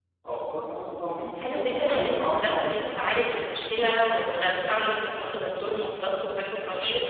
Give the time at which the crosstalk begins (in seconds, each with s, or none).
1.4 s